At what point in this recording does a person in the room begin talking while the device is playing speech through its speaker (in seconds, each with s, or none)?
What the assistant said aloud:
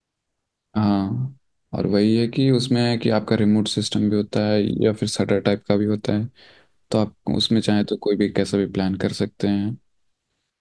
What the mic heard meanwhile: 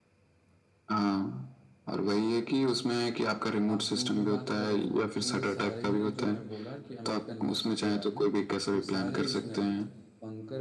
3.7 s